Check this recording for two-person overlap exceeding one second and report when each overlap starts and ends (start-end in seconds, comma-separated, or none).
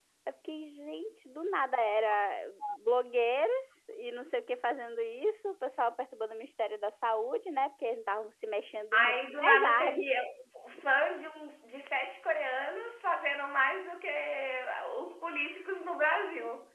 8.9-10.2